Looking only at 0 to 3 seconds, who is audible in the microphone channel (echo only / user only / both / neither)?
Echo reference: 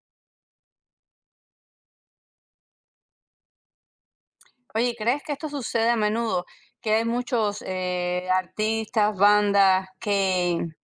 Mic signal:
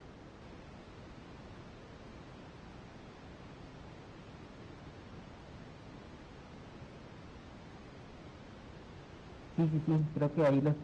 neither